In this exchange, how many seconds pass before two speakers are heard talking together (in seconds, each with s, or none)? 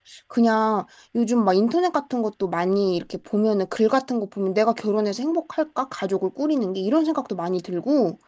none